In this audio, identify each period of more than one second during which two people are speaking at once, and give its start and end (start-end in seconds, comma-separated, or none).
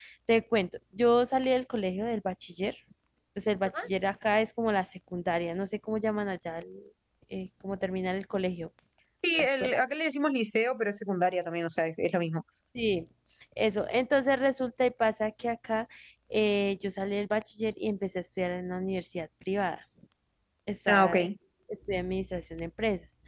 none